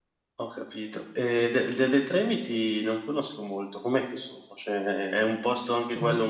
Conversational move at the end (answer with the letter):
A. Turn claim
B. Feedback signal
B